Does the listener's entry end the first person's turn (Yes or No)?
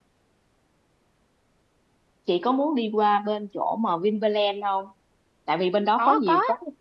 No